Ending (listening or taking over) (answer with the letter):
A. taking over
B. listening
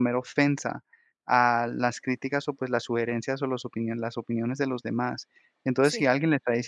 B